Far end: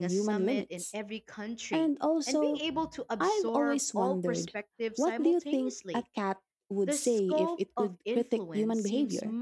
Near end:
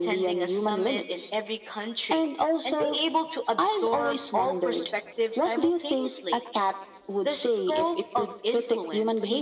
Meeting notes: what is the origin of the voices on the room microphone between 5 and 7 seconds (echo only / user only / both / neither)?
echo only